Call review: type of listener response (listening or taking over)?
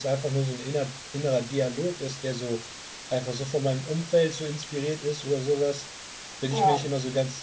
listening